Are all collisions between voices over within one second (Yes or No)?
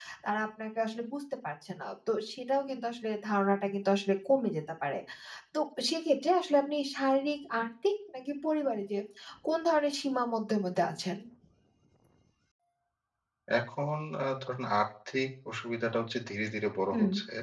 Yes